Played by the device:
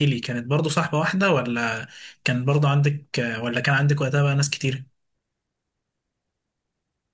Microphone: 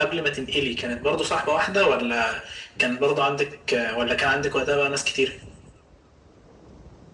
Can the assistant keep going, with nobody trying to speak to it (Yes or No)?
Yes